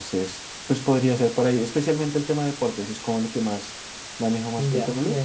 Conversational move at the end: taking over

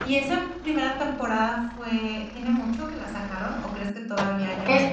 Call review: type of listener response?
taking over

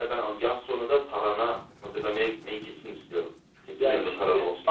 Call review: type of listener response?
taking over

